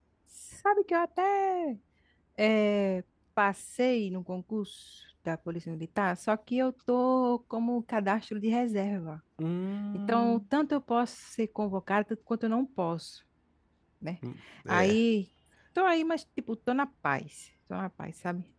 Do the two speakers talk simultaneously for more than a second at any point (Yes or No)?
No